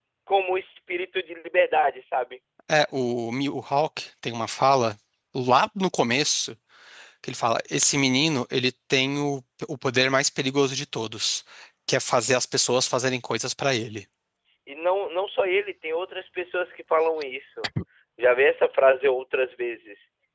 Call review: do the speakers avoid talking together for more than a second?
Yes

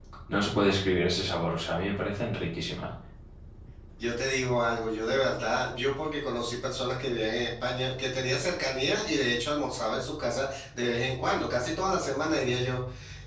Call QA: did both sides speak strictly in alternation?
Yes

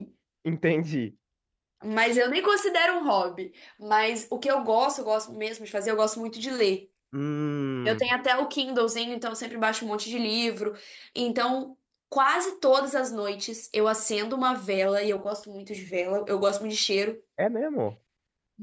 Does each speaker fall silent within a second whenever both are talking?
Yes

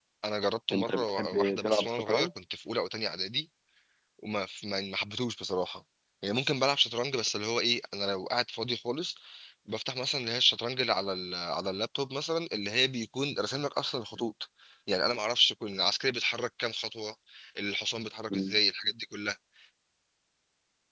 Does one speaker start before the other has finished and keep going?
Yes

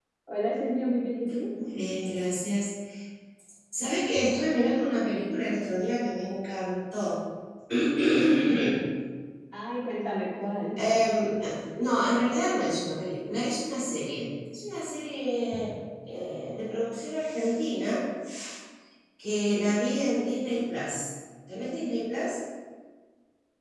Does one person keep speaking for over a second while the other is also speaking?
No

